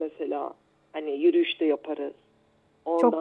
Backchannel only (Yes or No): No